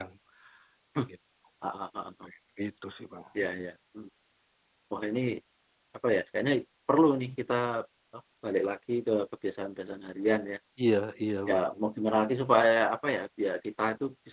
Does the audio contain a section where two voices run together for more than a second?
No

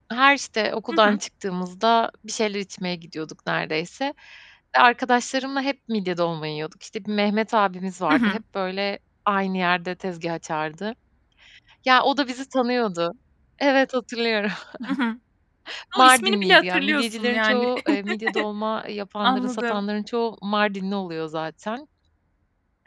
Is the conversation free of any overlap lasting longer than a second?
No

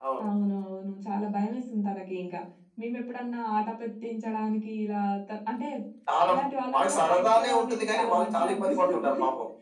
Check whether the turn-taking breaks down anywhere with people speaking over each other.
Yes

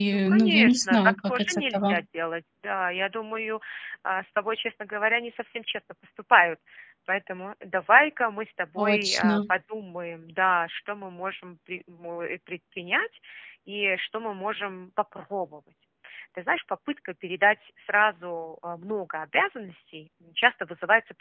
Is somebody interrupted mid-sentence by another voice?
Yes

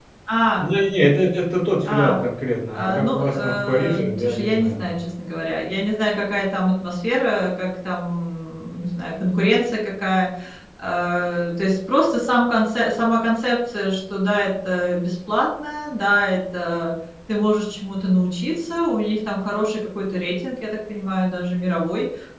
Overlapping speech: Yes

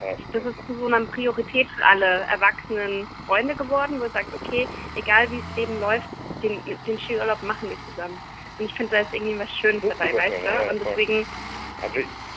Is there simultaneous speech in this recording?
Yes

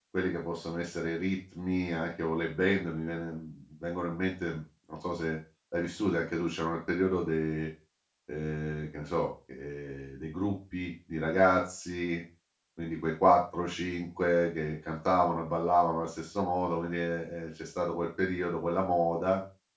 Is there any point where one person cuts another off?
No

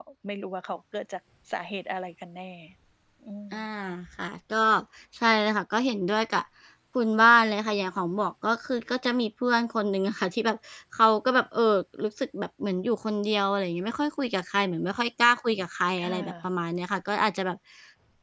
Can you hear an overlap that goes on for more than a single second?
No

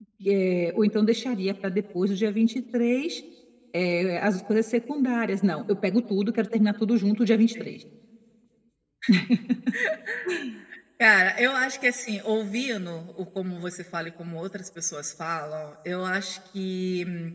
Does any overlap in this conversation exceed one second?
No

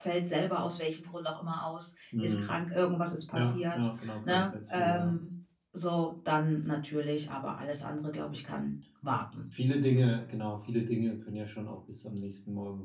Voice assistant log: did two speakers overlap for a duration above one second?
Yes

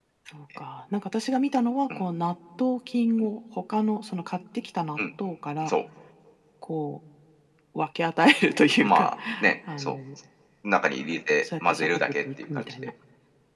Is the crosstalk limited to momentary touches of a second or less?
No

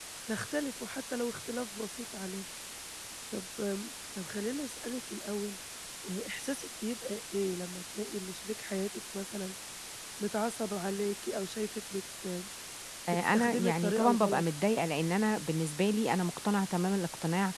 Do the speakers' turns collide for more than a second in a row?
Yes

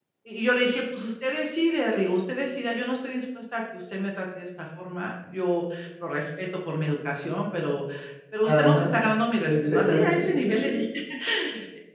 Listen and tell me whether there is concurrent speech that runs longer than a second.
Yes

